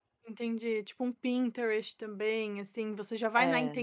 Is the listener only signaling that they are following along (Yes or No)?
Yes